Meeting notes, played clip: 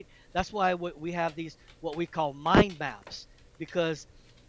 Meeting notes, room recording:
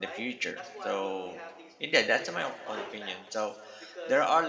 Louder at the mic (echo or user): user